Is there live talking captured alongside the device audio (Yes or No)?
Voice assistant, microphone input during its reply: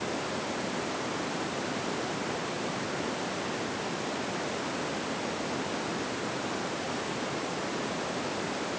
No